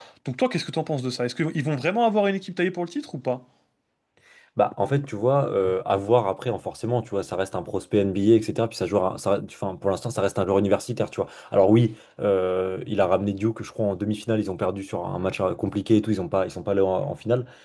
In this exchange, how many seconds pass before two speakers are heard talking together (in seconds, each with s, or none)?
none